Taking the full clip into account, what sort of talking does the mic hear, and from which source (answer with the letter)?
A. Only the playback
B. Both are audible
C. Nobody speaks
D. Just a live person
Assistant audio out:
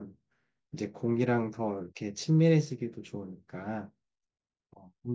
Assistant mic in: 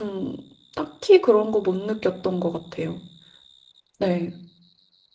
D